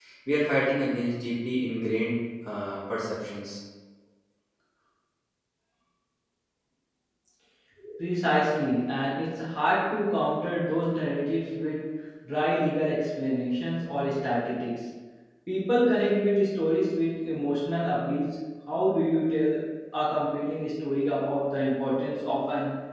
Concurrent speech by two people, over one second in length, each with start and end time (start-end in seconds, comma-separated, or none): none